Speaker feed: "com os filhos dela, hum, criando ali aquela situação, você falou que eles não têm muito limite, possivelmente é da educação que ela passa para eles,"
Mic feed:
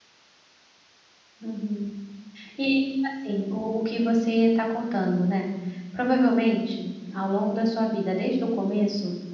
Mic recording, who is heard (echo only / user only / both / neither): user only